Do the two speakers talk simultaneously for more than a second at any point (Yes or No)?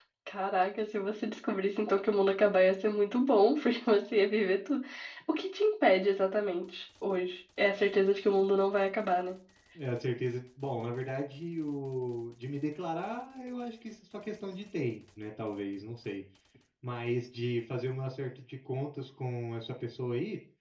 No